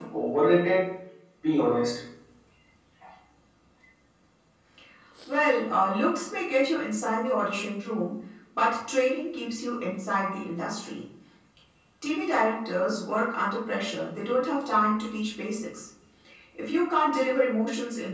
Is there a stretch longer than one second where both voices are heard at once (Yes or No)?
No